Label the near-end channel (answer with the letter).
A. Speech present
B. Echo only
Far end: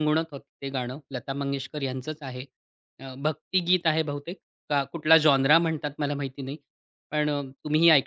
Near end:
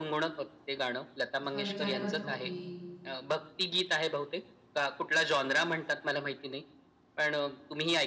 A